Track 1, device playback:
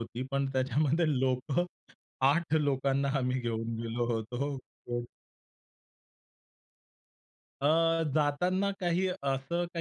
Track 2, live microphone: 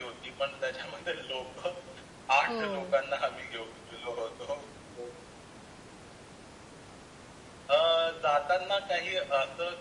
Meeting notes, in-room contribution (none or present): present